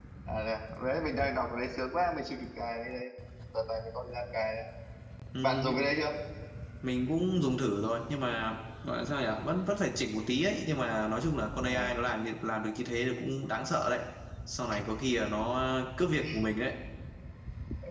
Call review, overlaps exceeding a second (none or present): none